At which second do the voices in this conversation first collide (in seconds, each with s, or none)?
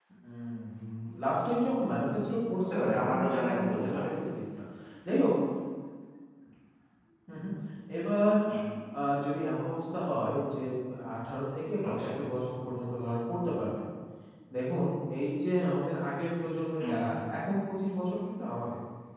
2.6 s